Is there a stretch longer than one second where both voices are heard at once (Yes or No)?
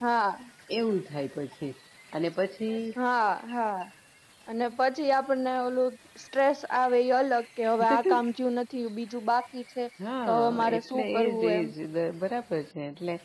Yes